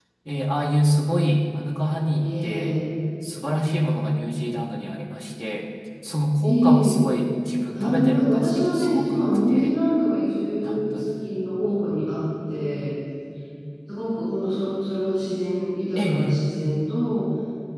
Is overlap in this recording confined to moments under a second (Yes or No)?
No